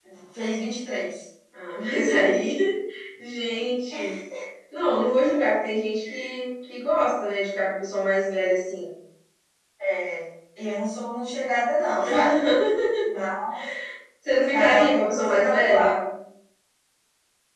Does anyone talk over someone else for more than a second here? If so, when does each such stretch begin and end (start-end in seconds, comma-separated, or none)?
14.5-15.9